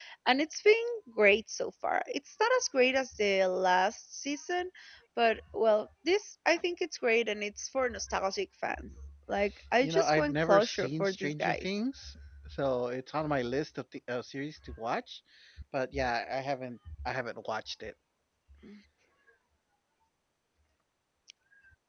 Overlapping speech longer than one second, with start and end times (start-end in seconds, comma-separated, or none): 9.8-11.7